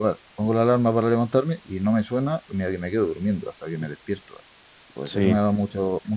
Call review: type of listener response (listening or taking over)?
listening